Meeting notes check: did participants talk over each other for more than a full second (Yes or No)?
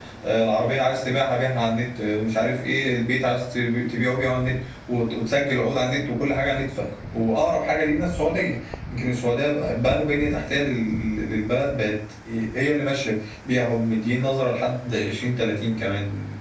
No